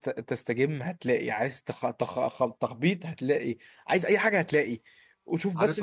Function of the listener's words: taking over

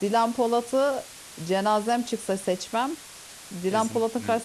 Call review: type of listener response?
listening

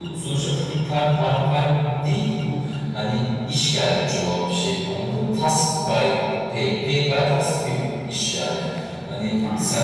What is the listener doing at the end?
listening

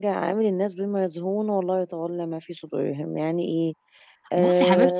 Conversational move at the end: taking over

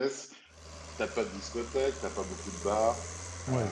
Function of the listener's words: listening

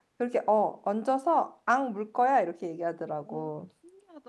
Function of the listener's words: taking over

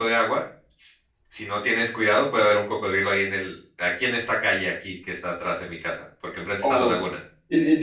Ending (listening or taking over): taking over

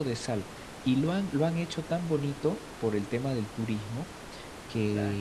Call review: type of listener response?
listening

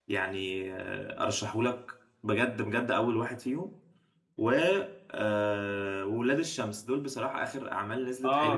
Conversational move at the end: taking over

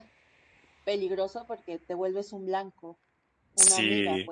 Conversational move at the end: taking over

